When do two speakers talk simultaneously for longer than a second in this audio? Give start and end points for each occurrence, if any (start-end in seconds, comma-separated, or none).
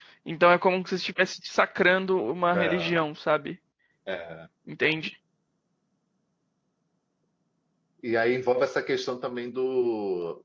none